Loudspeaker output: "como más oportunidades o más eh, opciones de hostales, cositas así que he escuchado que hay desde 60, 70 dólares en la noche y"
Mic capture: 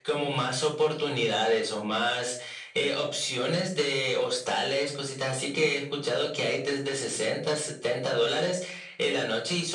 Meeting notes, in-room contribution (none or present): none